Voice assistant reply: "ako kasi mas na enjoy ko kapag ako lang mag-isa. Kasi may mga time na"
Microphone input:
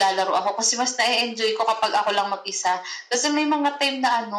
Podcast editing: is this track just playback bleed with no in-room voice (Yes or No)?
Yes